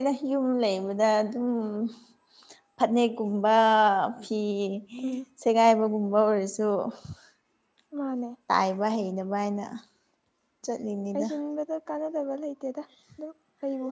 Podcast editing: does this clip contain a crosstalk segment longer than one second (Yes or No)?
No